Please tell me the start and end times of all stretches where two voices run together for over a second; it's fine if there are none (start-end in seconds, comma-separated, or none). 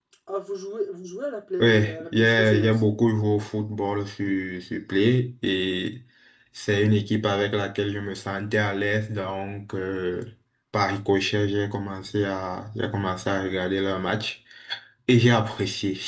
1.6-2.9